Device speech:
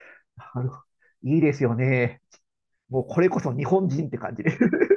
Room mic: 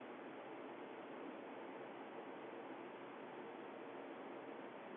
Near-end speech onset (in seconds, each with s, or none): none